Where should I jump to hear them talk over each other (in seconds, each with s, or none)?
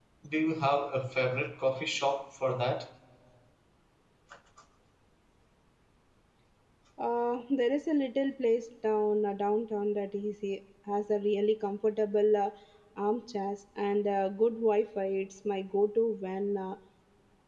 none